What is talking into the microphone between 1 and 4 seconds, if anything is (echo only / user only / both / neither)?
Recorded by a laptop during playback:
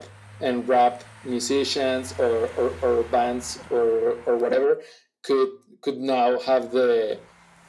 echo only